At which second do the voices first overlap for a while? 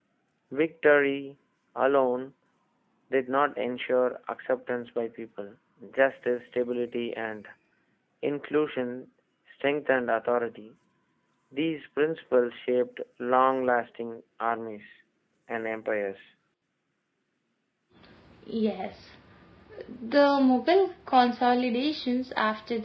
none

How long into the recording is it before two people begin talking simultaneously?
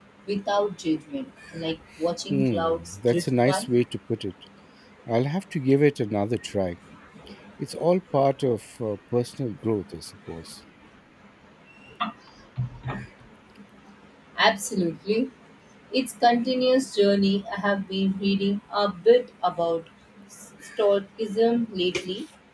2.3 s

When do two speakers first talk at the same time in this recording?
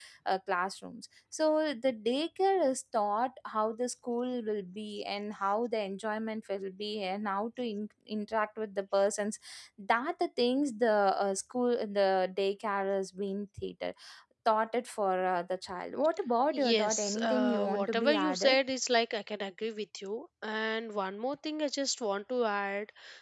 16.5 s

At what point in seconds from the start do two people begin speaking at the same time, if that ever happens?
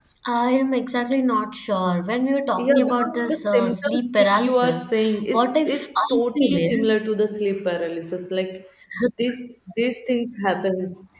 2.6 s

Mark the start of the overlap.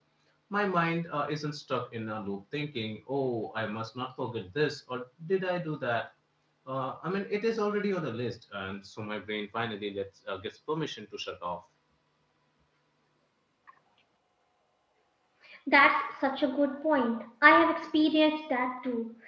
none

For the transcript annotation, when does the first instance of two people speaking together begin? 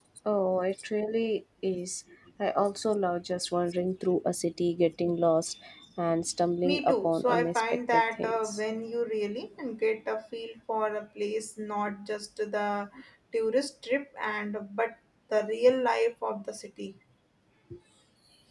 6.6 s

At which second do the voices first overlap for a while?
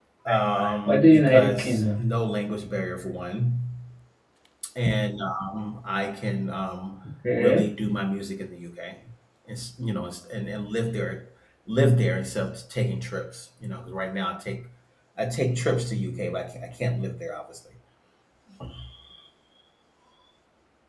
0.5 s

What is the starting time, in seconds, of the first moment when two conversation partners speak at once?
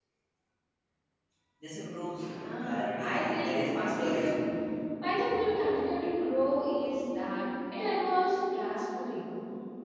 2.4 s

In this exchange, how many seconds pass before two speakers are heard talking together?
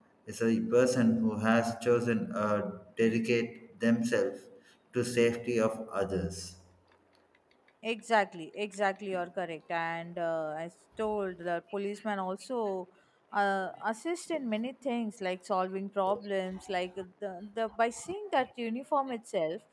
none

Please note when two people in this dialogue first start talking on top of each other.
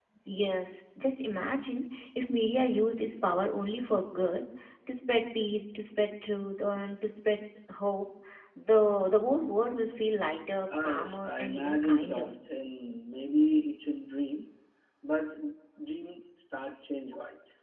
10.8 s

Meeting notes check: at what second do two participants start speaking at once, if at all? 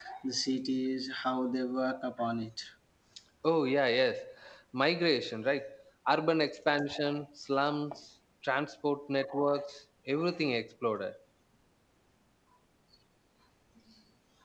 none

